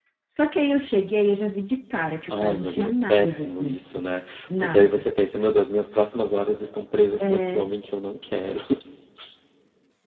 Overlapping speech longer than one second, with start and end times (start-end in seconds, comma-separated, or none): 2.3-3.8